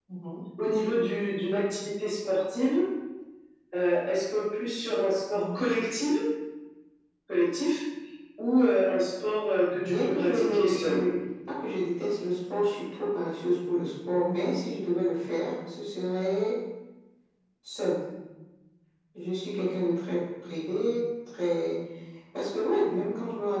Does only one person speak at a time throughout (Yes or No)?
No